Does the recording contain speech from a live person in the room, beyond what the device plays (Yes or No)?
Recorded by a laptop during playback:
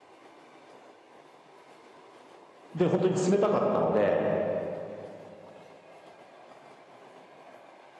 Yes